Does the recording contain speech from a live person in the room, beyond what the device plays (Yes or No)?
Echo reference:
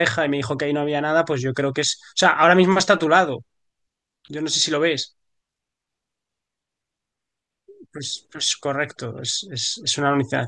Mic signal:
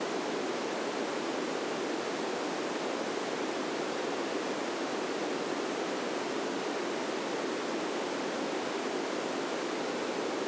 No